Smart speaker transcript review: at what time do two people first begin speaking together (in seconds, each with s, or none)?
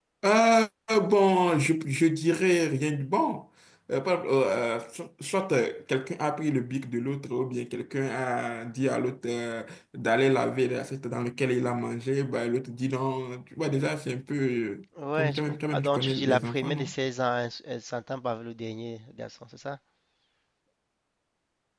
15.0 s